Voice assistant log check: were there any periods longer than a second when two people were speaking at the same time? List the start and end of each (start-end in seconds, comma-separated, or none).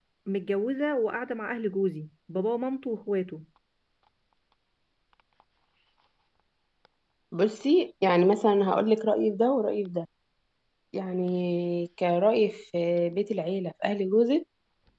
none